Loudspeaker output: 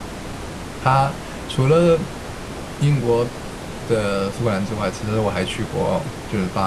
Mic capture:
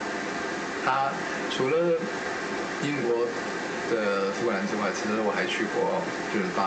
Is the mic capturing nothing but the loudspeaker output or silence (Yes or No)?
Yes